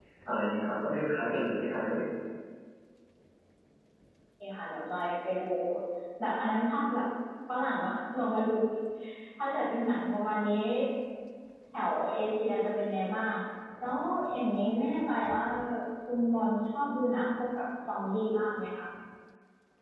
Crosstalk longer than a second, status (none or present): none